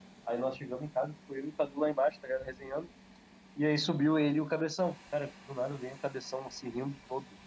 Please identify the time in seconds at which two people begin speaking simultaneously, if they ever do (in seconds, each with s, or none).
none